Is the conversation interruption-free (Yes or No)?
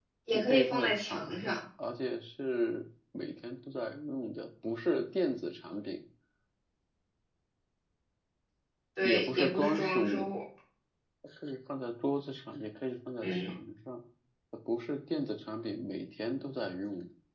No